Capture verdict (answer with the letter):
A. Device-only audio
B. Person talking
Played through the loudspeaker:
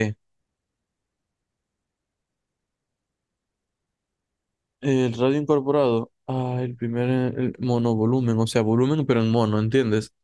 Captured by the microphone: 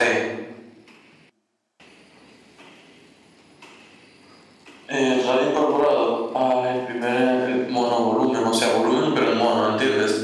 A